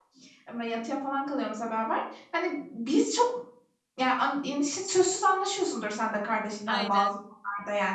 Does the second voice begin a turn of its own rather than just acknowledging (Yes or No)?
No